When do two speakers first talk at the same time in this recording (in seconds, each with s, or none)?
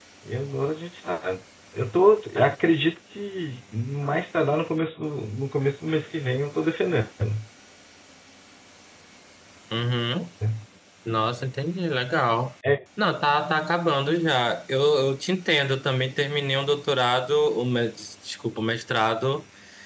none